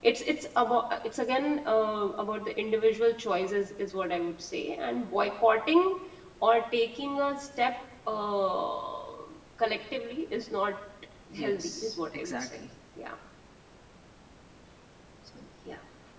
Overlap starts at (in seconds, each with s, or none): 11.3 s